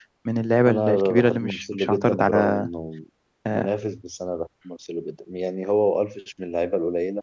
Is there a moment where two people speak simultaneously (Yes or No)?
Yes